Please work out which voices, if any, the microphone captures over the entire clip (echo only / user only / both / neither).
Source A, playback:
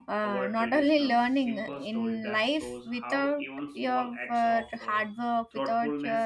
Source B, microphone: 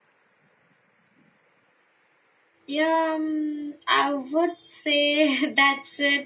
user only